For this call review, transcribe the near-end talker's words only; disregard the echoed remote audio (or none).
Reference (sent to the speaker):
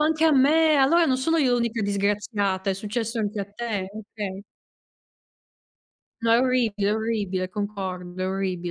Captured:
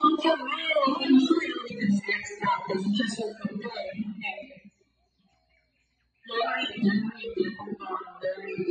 none